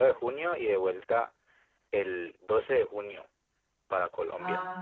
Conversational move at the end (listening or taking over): listening